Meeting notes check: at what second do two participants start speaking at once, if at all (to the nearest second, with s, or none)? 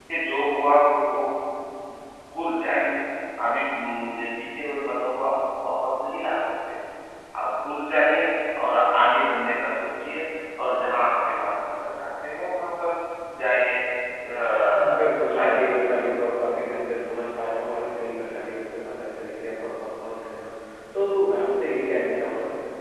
15 s